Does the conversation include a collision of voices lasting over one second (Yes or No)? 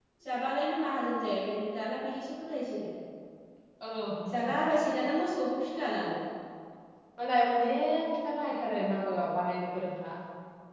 No